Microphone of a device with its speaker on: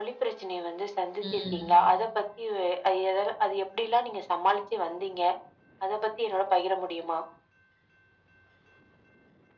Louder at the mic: echo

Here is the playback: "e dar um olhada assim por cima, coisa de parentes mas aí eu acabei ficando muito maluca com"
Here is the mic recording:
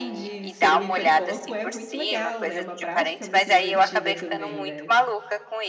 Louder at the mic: echo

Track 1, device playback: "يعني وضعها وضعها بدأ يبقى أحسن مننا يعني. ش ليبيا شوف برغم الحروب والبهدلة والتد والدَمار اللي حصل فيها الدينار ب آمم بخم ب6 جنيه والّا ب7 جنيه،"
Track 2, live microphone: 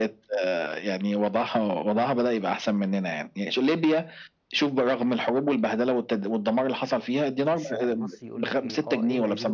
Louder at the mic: echo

